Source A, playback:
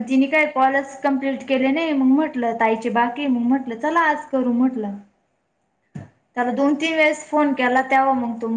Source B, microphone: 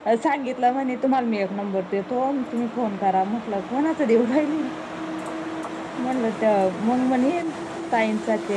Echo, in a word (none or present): none